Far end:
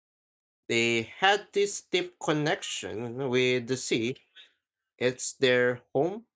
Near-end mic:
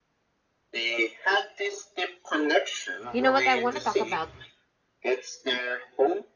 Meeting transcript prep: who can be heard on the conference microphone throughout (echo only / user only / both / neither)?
both